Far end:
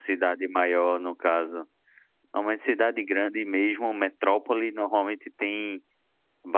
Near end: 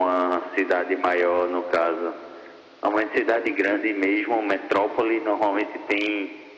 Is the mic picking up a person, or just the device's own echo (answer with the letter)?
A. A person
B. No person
B